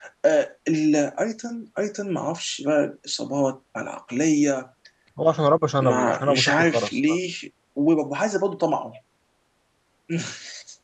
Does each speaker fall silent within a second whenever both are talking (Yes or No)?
No